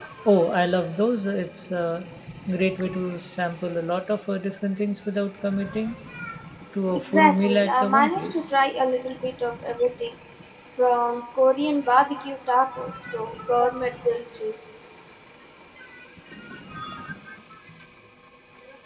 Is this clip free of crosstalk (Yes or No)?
No